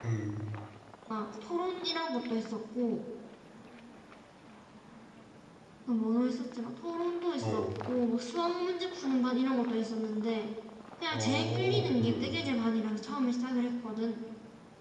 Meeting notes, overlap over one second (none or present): present